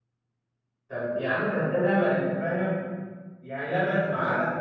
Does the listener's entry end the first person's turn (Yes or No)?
No